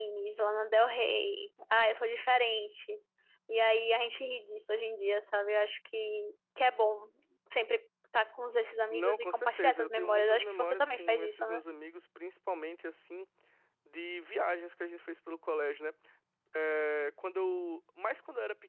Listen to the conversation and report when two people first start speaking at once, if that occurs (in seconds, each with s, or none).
8.9 s